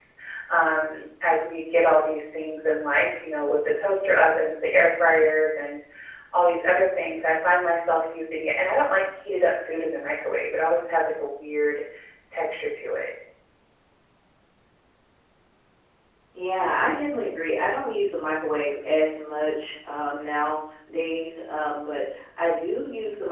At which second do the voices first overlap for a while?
none

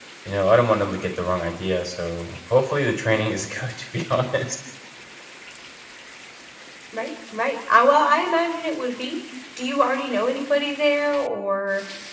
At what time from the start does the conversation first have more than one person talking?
none

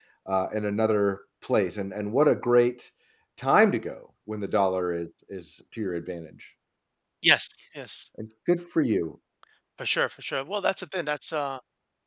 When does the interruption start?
none

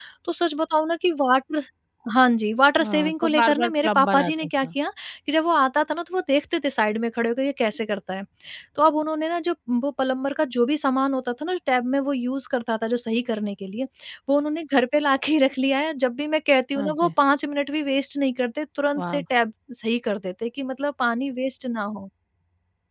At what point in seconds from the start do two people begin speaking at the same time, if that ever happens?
2.8 s

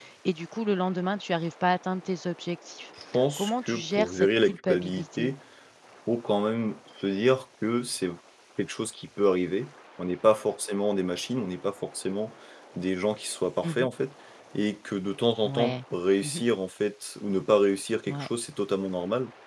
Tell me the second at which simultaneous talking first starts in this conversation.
3.4 s

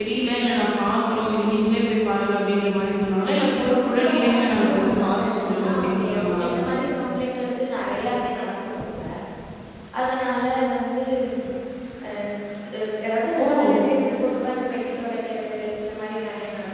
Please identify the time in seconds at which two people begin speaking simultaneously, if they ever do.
3.7 s

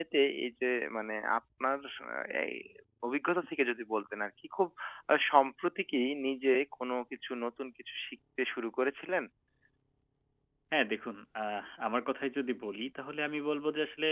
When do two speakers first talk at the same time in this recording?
none

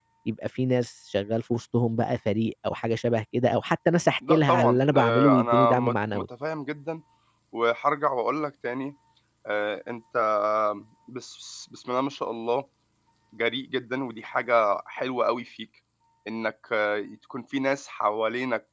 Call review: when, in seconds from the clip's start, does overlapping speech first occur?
4.2 s

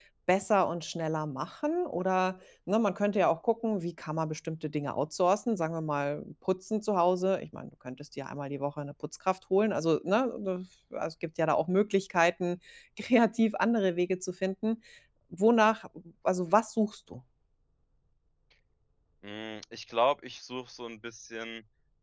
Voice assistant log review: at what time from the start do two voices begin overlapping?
none

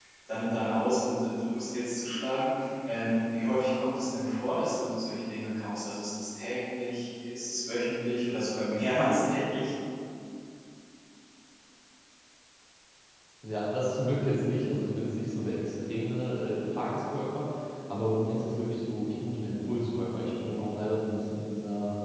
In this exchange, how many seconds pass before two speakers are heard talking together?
none

